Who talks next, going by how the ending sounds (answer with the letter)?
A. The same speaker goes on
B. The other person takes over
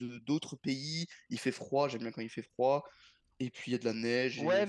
B